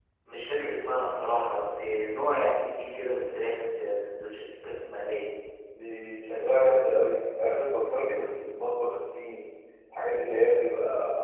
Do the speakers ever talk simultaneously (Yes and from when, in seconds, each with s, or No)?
No